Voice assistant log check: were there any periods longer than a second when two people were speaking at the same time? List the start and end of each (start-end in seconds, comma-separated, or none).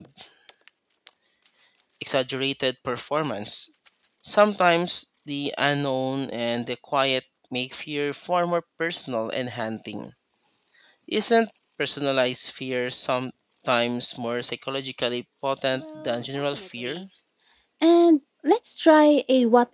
15.7-17.0